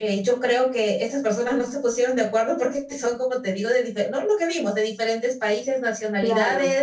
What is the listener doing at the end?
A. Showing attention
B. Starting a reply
A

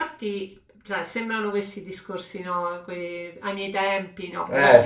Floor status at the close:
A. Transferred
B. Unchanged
B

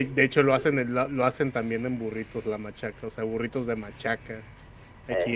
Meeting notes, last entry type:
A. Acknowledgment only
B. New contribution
A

